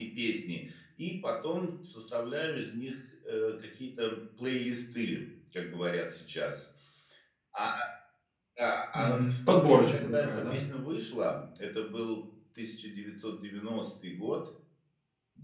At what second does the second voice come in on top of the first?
8.9 s

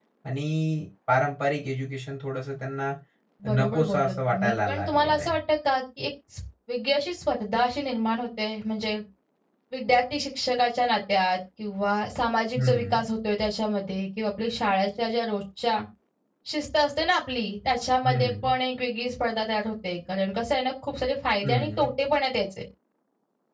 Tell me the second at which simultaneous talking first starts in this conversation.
3.5 s

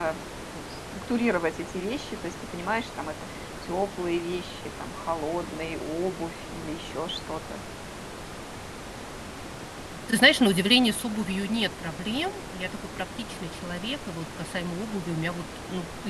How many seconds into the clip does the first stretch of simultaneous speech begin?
none

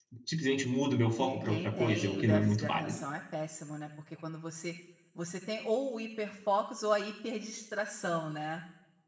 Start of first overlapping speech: 1.2 s

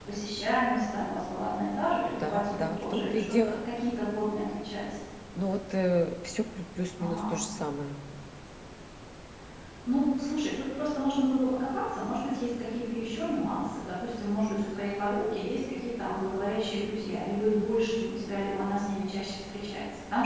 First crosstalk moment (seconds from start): 2.1 s

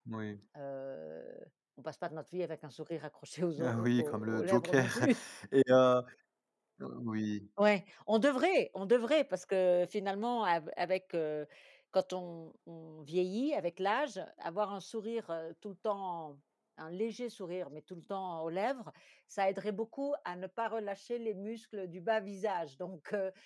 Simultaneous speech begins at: 3.6 s

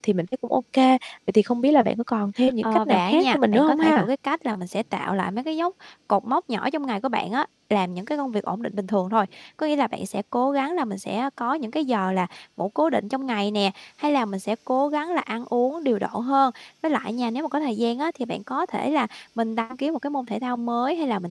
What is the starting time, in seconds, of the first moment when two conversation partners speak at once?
2.6 s

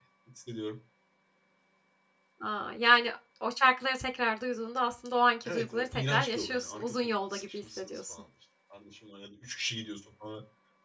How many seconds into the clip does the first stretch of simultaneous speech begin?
5.5 s

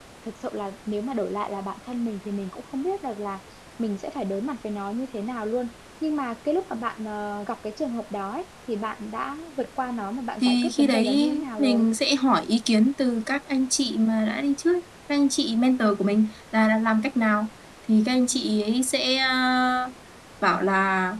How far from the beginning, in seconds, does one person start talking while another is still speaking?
10.4 s

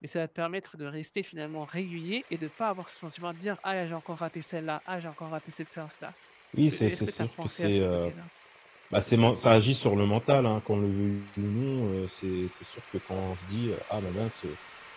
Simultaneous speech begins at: 6.7 s

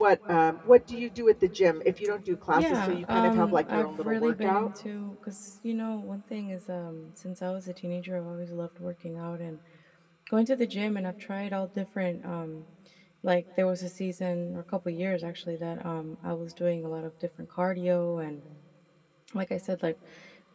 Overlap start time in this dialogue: 2.5 s

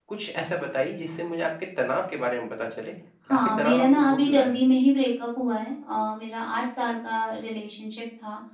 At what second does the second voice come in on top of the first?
3.3 s

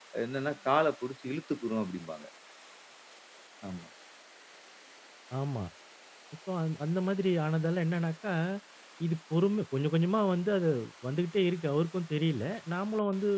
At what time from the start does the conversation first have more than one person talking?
none

